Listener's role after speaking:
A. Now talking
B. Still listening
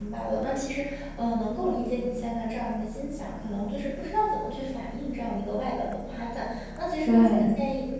B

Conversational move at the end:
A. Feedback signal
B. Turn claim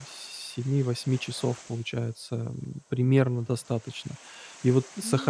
A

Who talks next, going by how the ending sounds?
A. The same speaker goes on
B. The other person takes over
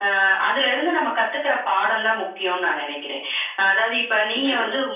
A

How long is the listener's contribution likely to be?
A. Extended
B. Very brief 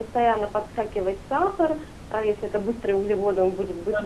B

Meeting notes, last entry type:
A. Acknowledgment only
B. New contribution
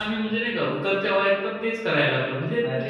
B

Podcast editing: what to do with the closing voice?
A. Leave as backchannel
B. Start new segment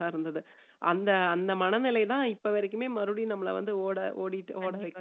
B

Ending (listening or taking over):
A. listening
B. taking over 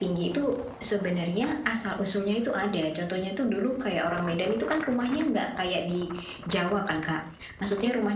A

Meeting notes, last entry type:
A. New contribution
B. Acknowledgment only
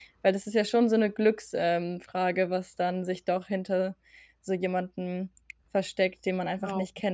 A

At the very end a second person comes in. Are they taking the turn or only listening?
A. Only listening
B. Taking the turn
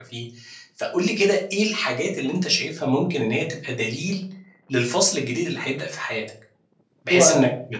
A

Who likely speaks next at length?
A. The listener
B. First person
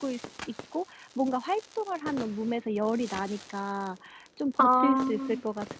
B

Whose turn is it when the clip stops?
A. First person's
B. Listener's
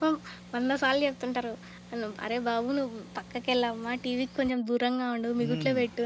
B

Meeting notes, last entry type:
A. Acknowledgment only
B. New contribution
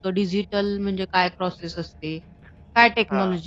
A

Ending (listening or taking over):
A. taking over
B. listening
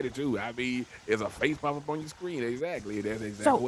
A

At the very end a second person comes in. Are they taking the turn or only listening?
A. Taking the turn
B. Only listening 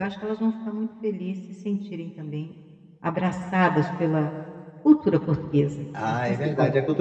A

